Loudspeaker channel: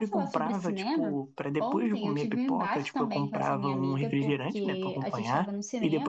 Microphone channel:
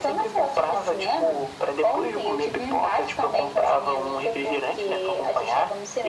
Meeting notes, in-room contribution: none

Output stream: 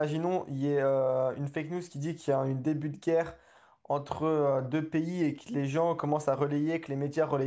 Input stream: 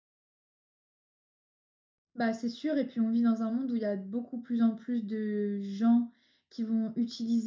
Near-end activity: present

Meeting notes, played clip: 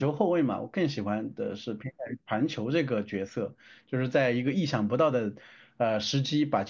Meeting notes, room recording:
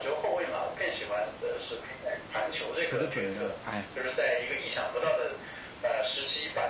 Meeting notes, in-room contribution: present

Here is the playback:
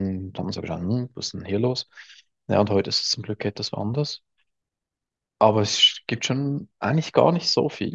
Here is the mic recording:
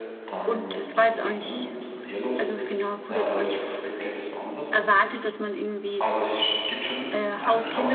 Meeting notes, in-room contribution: present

